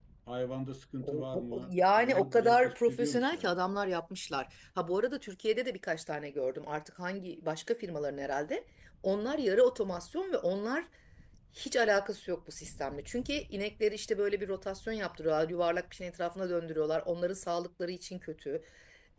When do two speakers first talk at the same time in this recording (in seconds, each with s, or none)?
1.0 s